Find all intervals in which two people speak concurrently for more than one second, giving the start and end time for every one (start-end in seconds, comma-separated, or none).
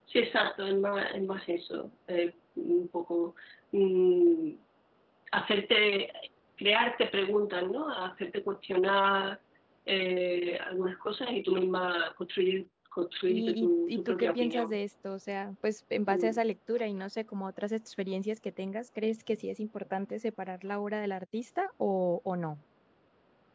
13.3-14.8